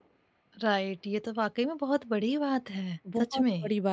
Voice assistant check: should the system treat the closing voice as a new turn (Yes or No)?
Yes